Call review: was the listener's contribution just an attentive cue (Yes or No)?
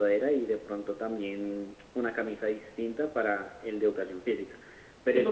No